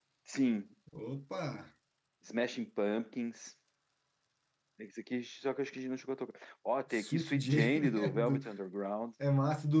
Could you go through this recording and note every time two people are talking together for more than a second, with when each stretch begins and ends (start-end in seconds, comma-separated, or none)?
6.9-8.4